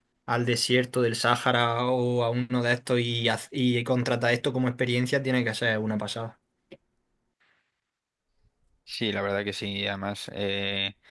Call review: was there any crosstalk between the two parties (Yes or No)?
No